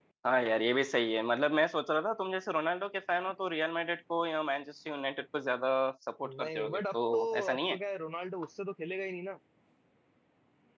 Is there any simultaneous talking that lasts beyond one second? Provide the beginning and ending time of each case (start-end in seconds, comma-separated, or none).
6.2-7.8